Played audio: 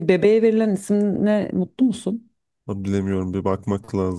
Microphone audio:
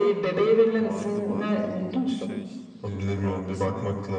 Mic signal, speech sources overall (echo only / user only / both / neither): both